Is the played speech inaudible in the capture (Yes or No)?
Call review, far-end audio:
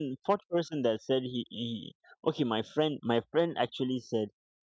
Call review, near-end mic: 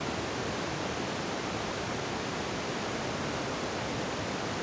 Yes